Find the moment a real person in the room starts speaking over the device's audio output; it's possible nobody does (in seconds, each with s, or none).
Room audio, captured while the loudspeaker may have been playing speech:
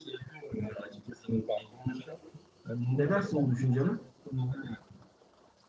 3.0 s